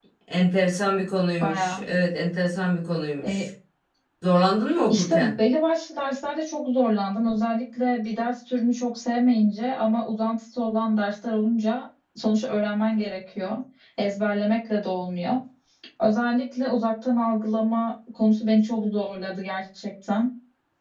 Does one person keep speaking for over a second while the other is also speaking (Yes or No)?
No